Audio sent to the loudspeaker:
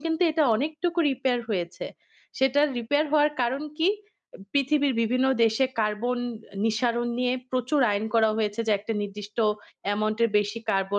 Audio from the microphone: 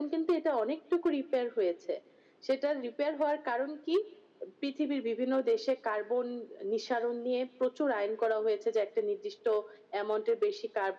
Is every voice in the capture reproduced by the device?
Yes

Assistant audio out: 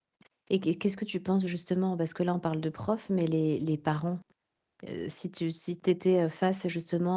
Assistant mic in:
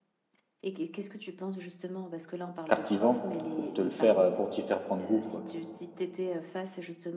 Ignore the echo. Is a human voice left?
Yes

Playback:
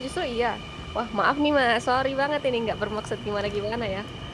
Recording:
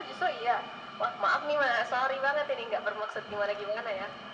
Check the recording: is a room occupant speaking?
No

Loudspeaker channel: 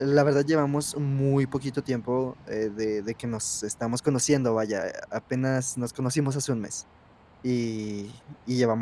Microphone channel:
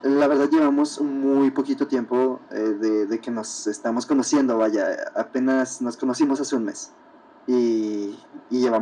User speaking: No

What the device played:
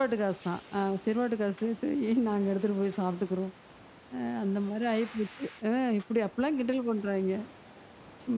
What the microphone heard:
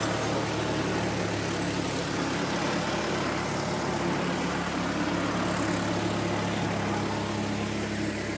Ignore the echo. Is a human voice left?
No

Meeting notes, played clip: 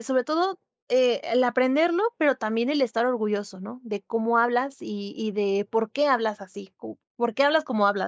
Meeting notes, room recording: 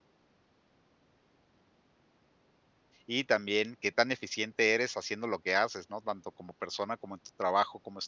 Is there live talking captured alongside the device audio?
Yes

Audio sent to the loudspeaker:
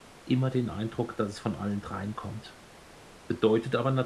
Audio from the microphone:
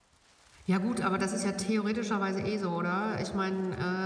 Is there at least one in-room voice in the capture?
Yes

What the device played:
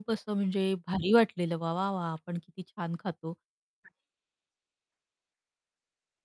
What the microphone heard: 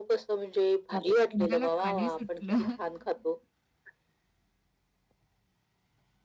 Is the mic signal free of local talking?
No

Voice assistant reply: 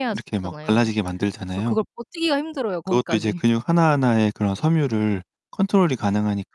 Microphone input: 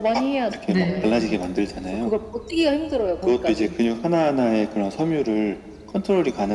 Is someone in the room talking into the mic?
Yes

